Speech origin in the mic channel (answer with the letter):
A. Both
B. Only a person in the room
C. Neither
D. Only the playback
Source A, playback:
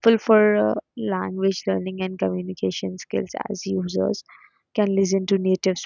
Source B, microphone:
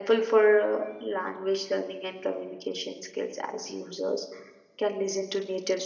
D